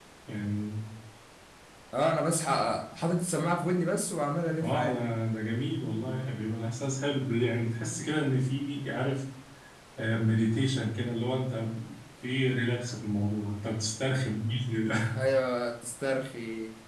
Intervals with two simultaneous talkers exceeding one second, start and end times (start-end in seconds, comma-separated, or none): none